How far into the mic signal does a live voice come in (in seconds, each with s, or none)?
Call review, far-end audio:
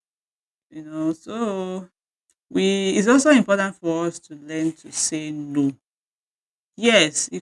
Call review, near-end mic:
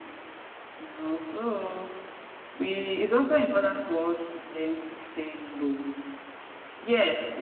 none